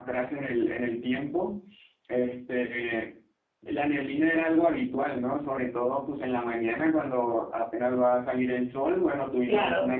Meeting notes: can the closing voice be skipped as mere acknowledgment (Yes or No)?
Yes